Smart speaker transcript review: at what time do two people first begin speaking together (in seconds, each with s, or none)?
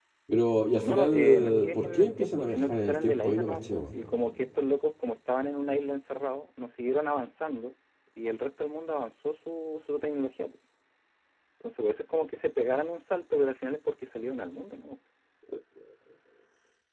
0.8 s